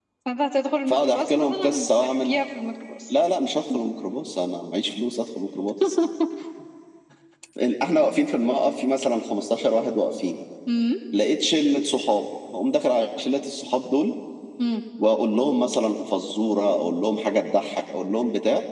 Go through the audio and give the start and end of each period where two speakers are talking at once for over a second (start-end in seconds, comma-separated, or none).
0.9-2.4